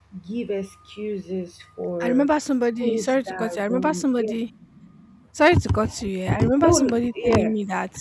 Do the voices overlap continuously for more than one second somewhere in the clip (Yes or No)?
Yes